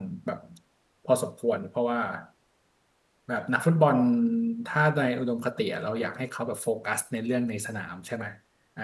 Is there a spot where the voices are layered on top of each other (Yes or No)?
No